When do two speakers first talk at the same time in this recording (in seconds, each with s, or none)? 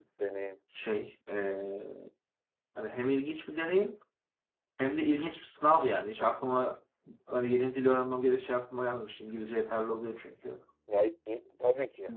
none